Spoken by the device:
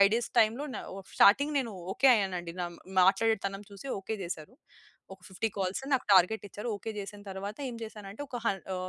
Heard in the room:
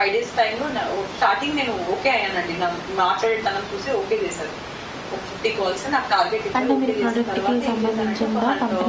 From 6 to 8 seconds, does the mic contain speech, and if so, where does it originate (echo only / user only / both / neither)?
both